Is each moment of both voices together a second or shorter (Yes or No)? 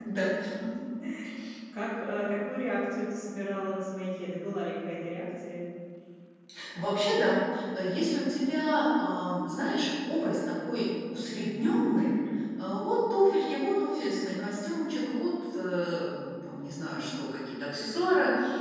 Yes